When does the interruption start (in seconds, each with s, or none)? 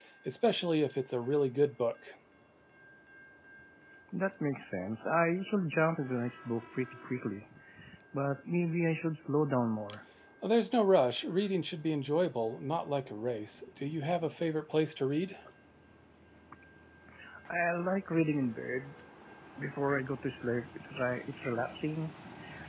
none